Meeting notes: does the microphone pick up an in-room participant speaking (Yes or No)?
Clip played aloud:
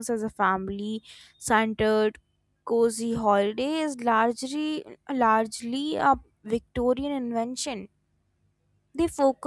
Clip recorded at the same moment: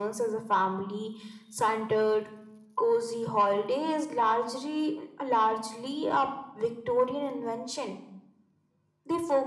No